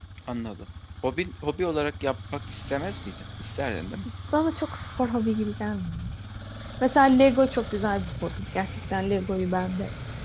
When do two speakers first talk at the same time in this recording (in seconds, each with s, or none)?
none